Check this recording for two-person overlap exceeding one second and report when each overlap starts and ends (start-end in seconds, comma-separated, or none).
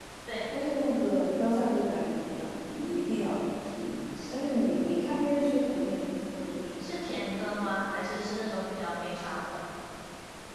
none